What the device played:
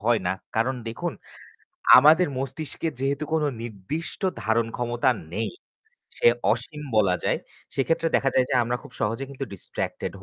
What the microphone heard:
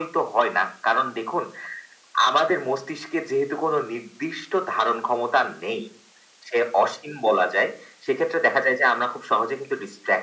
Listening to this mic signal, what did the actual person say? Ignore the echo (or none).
none